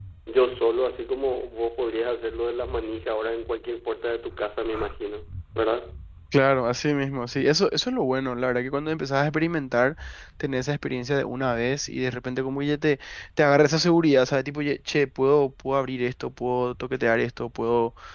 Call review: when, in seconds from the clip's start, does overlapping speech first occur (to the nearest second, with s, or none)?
none